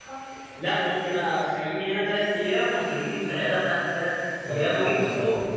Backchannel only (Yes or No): No